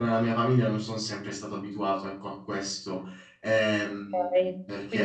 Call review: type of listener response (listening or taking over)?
taking over